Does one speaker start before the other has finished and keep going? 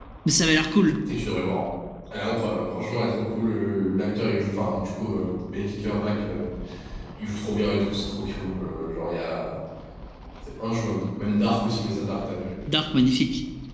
No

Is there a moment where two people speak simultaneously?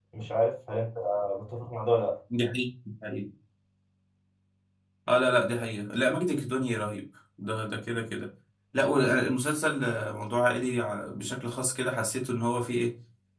No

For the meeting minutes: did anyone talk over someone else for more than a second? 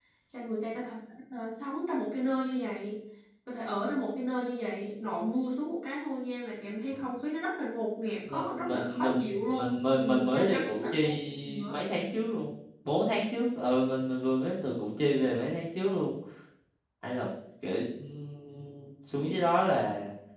Yes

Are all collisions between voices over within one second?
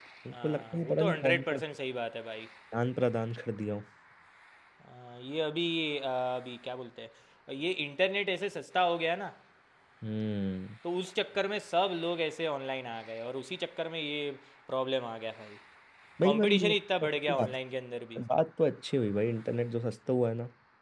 No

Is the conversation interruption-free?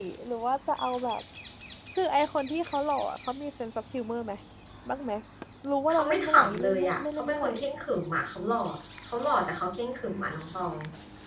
No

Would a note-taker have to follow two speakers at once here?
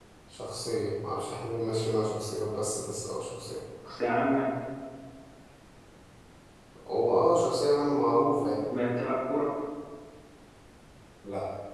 No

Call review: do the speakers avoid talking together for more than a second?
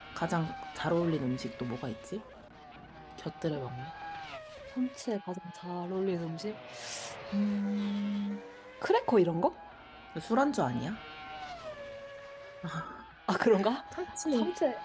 Yes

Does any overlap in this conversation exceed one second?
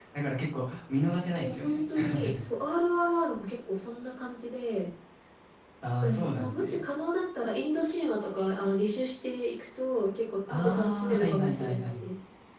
Yes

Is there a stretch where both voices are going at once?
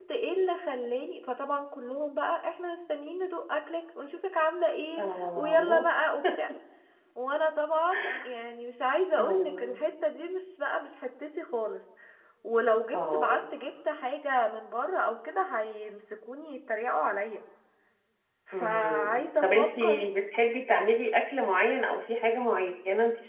Yes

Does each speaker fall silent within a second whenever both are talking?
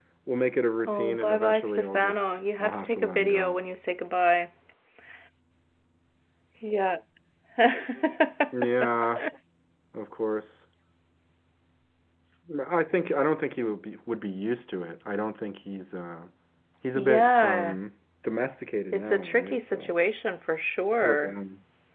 No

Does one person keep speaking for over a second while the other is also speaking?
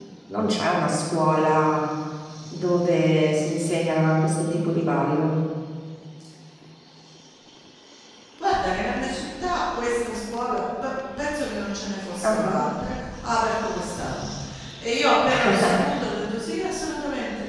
No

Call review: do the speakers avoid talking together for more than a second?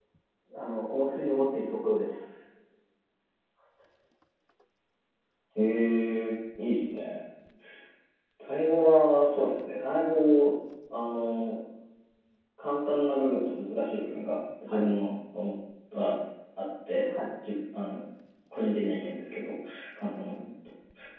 Yes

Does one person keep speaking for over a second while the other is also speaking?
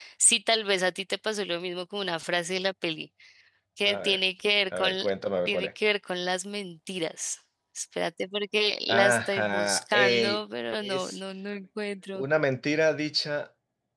Yes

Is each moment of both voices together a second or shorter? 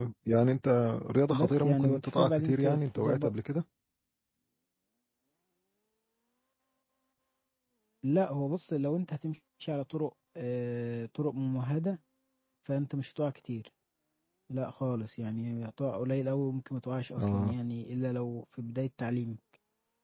No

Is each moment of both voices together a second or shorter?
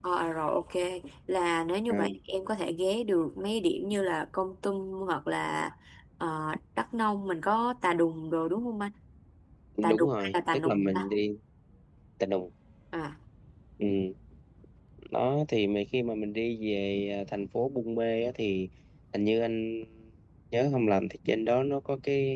No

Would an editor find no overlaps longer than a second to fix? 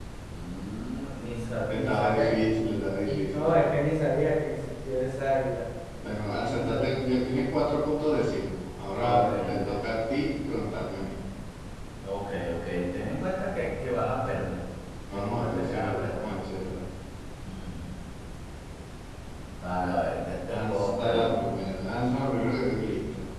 No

